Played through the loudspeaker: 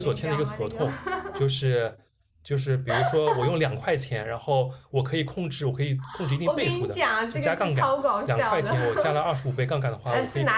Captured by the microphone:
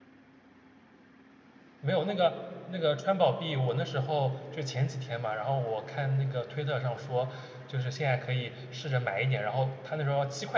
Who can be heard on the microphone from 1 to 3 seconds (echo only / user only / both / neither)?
user only